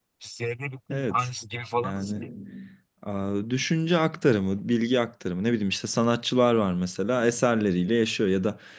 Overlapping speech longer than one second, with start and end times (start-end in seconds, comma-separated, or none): none